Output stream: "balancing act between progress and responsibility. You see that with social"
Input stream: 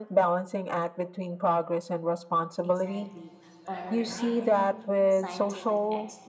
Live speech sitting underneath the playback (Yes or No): Yes